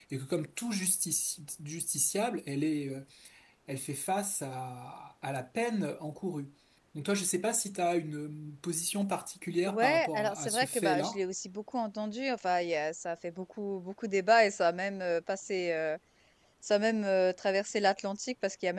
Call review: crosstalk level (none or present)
present